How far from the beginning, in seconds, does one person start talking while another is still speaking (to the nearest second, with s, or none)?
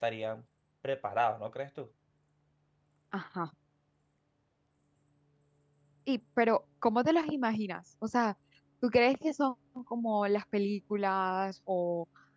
none